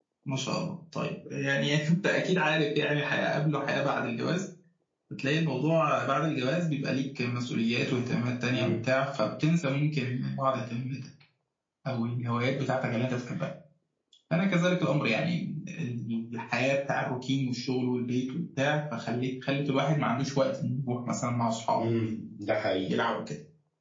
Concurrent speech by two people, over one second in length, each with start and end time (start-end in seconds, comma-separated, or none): none